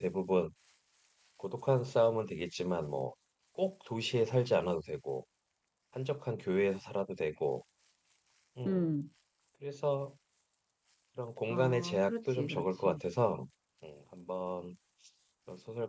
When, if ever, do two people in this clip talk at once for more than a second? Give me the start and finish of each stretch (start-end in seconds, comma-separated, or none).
11.5-13.0